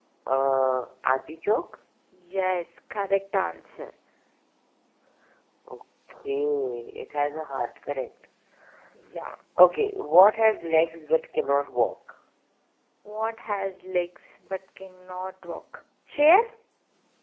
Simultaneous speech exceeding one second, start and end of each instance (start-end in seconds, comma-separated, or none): none